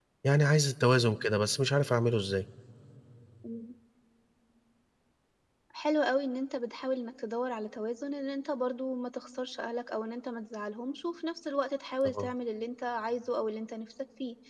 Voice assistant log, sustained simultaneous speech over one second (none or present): none